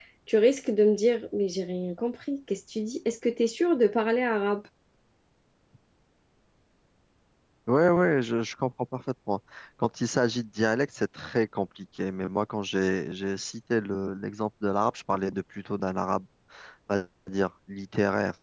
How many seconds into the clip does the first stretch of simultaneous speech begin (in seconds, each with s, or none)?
none